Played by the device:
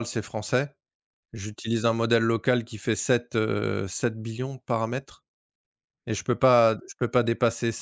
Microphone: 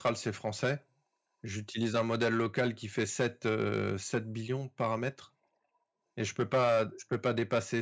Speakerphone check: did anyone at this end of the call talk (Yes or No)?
No